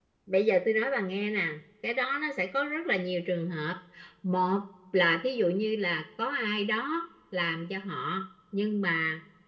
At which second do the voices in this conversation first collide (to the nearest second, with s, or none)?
none